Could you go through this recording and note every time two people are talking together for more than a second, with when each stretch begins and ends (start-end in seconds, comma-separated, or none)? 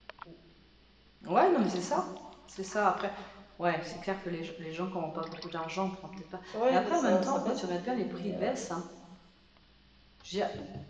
6.5-8.5